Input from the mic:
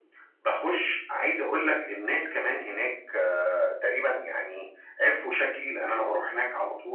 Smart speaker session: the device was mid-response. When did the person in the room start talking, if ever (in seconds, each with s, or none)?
none